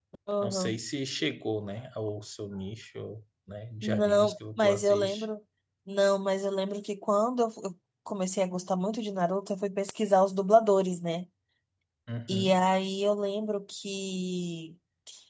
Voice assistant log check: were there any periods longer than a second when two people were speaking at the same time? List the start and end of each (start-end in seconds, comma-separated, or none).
3.8-5.2